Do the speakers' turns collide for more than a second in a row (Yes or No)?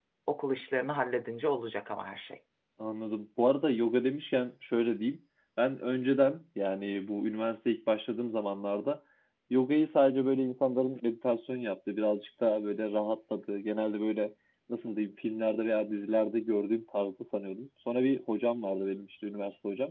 No